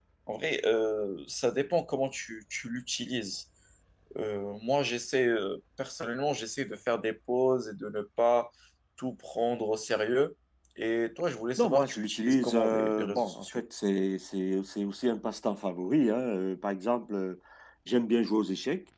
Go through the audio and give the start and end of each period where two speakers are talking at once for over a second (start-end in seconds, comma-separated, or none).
11.6-13.6